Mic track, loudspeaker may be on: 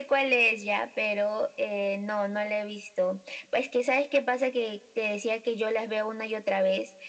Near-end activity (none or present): none